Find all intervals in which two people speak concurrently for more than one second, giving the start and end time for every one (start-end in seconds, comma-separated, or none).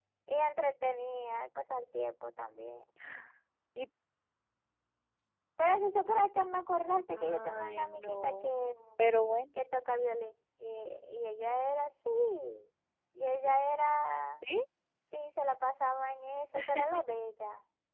7.1-8.5